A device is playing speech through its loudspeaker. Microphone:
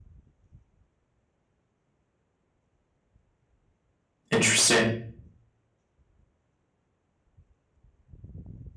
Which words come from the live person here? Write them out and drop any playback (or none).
Interesting.